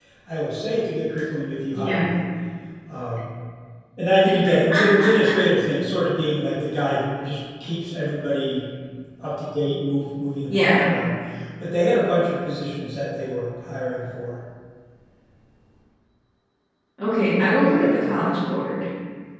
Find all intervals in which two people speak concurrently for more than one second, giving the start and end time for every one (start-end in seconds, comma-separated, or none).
none